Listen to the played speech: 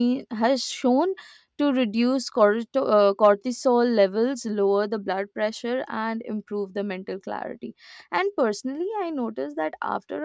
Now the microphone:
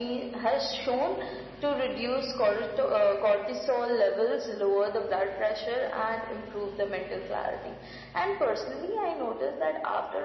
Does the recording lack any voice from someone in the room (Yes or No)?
Yes